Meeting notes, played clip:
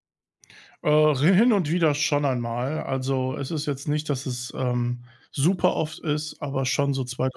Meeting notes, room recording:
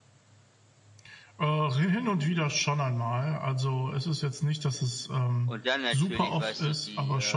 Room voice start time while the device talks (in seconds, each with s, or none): 5.4 s